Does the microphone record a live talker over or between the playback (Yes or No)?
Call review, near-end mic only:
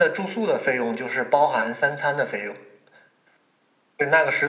No